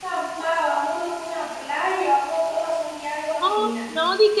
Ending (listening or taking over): taking over